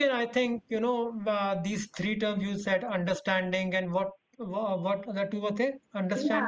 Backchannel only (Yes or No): No